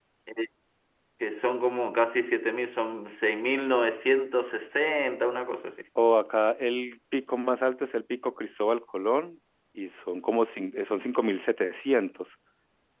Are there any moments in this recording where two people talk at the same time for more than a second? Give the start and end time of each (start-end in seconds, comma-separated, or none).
none